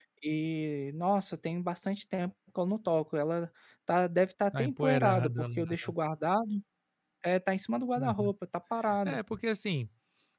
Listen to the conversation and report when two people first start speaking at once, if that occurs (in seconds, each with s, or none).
4.5 s